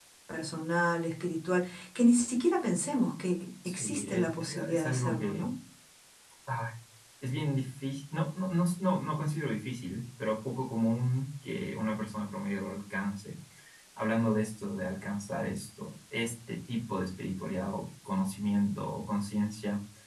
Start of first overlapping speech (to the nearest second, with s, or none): 4 s